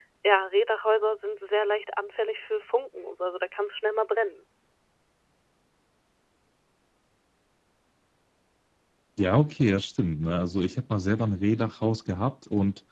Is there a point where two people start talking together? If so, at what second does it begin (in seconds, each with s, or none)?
none